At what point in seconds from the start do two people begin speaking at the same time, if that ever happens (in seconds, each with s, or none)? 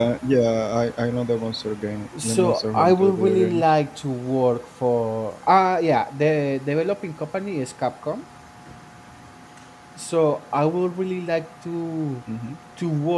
2.1 s